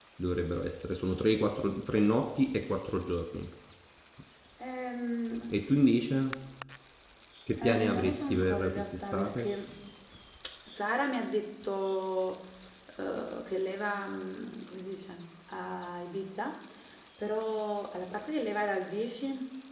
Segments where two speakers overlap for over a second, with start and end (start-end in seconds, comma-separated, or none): 7.6-9.5